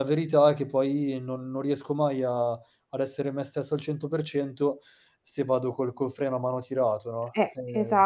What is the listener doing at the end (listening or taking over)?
taking over